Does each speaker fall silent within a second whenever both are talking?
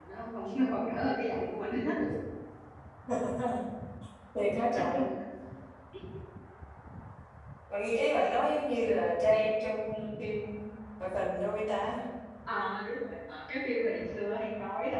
Yes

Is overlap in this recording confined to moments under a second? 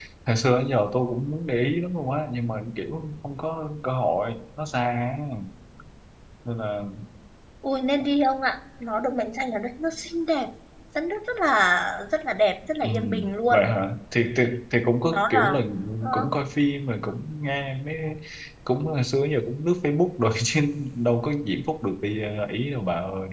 Yes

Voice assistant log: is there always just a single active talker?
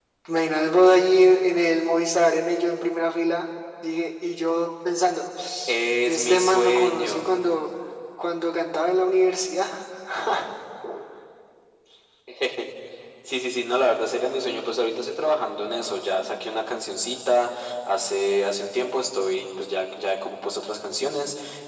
No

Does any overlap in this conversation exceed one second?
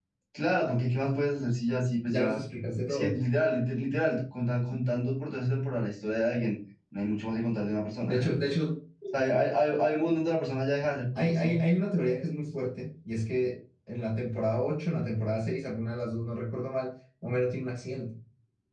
No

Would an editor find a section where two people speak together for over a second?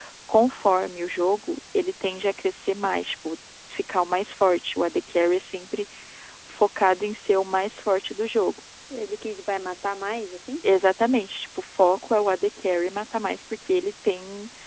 No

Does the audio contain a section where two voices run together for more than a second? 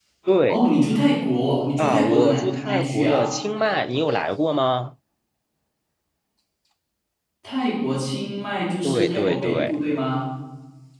Yes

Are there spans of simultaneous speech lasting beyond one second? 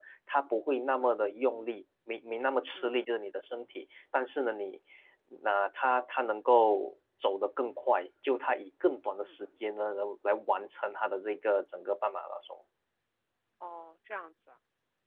No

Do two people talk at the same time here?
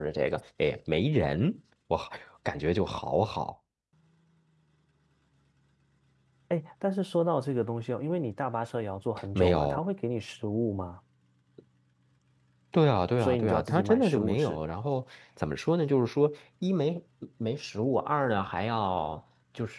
Yes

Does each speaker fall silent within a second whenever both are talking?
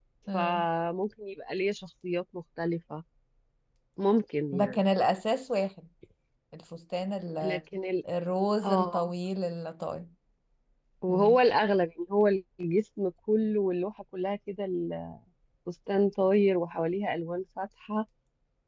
Yes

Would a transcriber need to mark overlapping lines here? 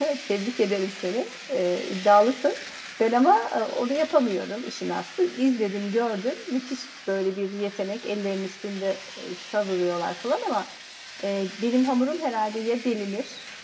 No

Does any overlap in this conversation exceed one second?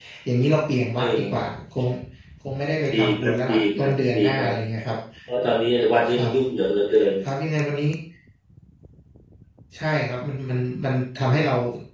Yes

